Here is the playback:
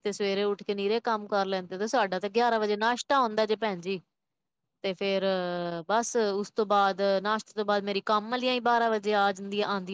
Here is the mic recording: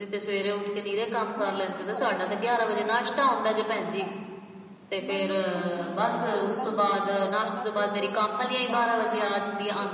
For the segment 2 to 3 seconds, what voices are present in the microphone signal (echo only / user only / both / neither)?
both